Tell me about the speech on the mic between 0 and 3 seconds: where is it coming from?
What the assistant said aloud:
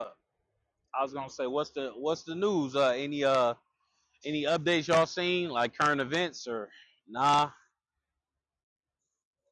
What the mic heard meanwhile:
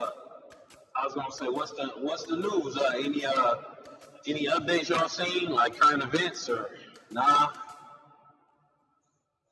echo only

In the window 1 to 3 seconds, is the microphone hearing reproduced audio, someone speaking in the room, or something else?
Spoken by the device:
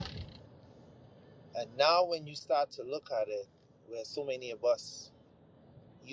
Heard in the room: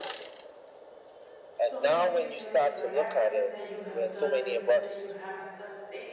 both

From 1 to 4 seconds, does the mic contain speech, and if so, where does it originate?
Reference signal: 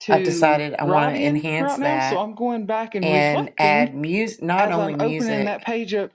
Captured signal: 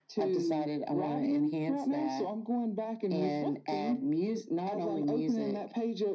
echo only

